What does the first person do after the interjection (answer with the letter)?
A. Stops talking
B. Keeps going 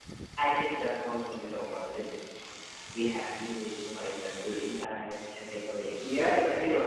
A